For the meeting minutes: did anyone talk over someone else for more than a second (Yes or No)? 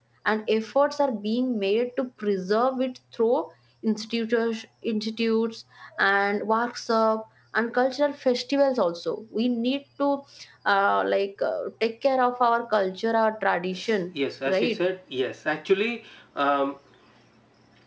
No